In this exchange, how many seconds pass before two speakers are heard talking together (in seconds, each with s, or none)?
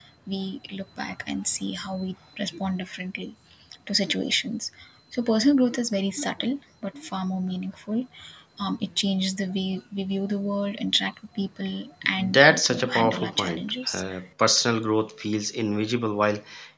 12.2 s